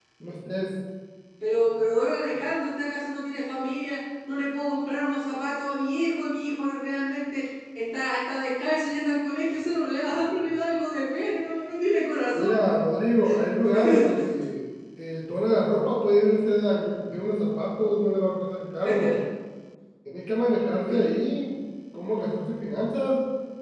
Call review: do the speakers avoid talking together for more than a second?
Yes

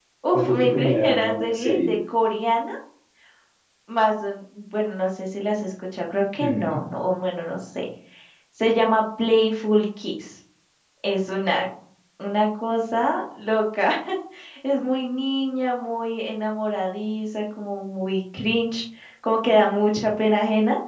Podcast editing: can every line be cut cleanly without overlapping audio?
No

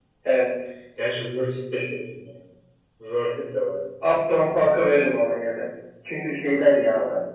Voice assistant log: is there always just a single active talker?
Yes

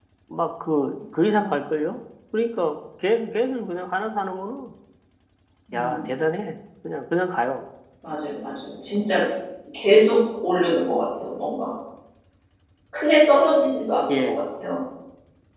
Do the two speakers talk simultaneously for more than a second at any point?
No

